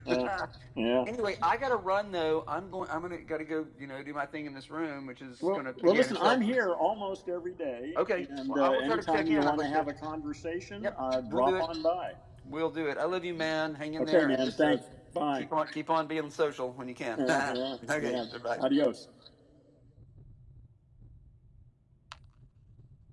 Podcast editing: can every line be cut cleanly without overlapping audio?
No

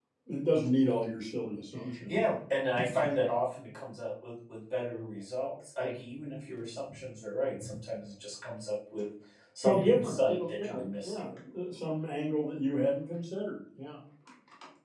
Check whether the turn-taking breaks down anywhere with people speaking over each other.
Yes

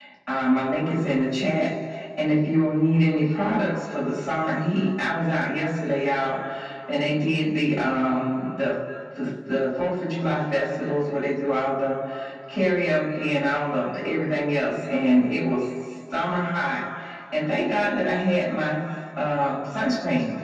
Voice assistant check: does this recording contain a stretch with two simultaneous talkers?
No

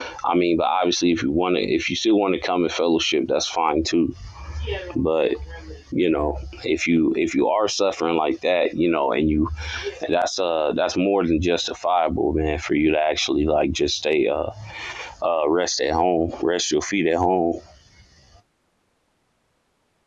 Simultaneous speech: No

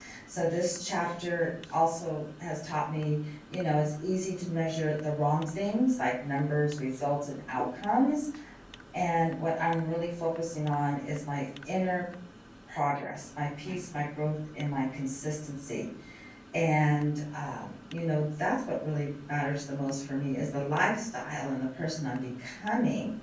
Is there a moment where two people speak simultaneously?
No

